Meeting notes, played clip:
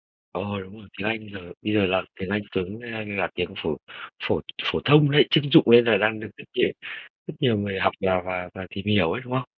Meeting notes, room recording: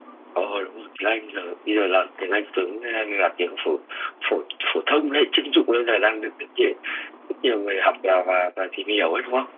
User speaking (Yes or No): No